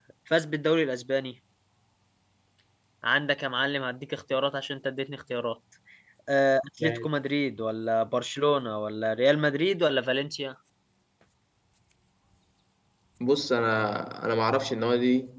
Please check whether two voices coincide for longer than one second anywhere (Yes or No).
No